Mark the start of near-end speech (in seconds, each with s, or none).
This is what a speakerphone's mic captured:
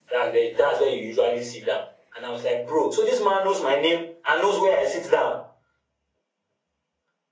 none